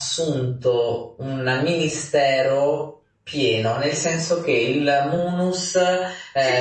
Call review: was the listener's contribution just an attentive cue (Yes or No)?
No